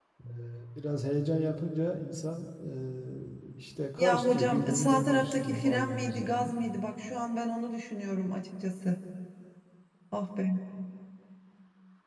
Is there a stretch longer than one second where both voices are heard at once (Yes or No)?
Yes